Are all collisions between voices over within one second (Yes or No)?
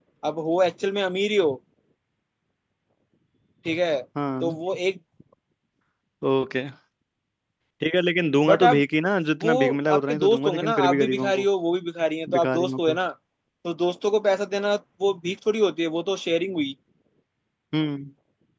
No